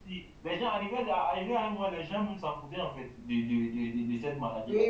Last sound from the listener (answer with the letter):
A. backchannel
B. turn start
B